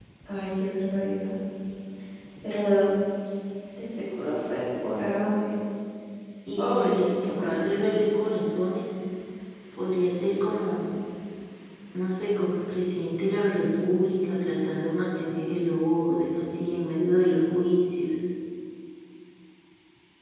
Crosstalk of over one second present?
Yes, from 6.6 s

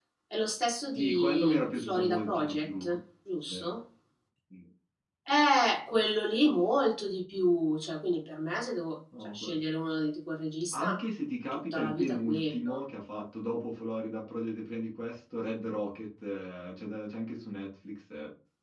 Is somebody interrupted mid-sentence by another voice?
Yes, from 1.0 s

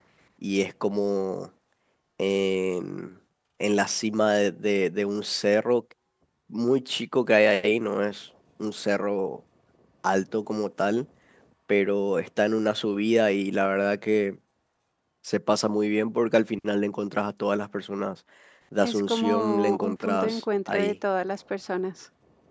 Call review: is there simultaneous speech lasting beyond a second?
Yes, from 18.8 s

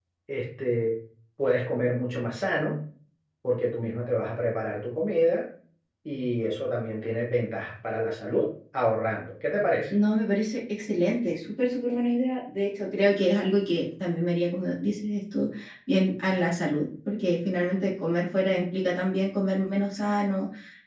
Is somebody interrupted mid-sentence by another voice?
No

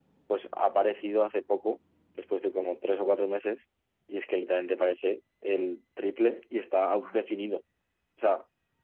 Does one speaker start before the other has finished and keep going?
No

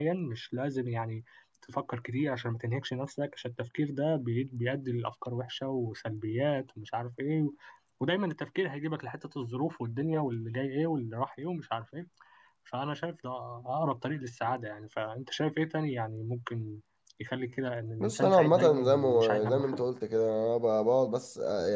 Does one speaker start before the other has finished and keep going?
Yes, from 18.0 s

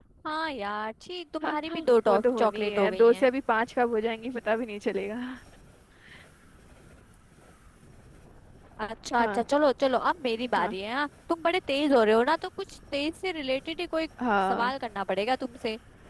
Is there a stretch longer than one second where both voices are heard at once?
Yes, from 1.4 s

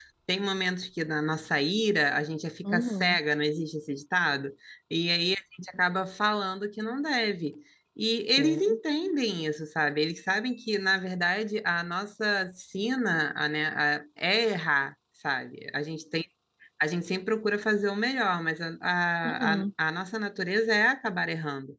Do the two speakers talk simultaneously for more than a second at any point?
No

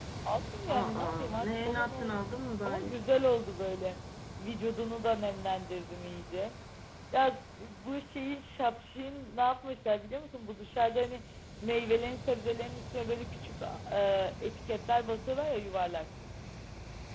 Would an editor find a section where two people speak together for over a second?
Yes, from 0.7 s

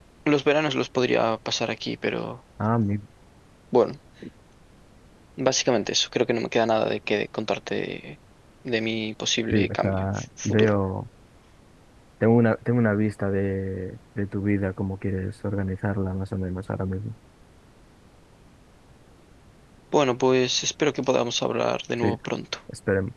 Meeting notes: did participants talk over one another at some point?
Yes, from 9.5 s

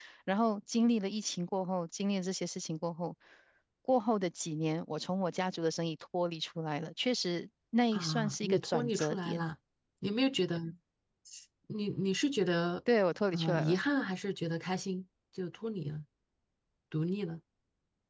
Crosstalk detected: Yes, from 7.9 s

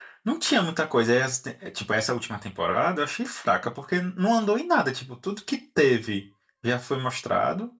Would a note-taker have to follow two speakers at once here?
No

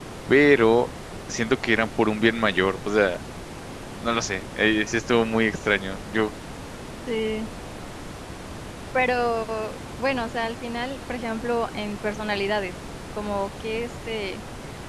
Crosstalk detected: No

